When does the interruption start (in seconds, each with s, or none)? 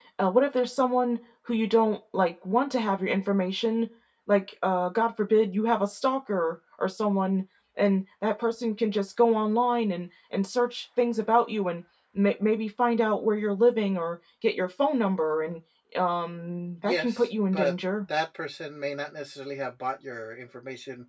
16.8 s